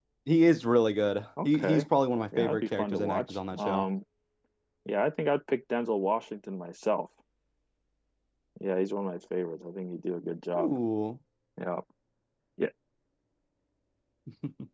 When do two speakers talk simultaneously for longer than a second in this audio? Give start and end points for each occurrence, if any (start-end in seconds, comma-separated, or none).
2.4-3.9